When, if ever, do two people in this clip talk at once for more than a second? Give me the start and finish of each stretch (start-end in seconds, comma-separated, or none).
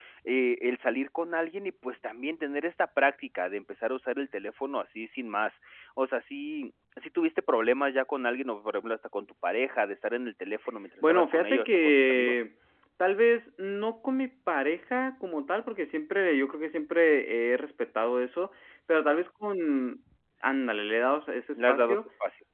11.0-12.4